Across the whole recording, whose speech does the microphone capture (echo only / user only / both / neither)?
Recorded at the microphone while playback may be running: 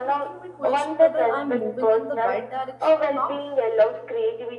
both